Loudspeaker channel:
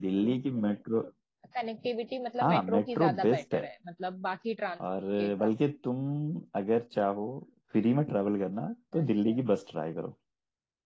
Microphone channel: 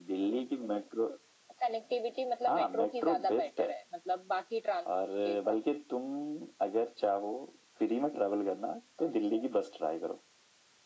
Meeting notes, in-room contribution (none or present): none